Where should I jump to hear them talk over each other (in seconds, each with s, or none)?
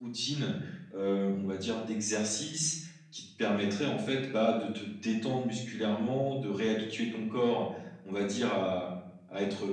none